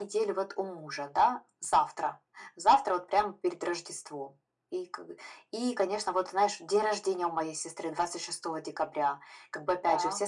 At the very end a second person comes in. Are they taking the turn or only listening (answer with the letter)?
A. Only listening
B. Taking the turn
A